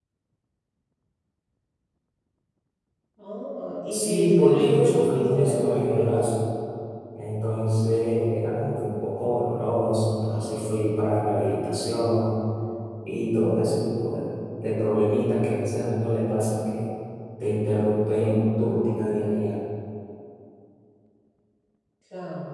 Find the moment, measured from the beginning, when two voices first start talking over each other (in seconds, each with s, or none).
3.9 s